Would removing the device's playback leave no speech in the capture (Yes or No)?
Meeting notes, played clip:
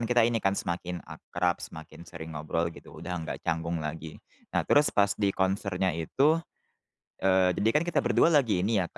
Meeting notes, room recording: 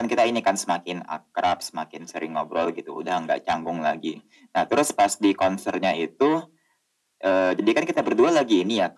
Yes